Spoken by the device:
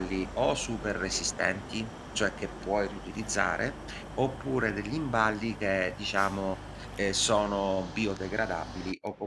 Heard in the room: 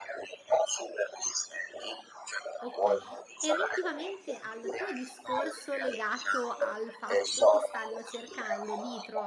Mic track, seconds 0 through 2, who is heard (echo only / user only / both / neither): echo only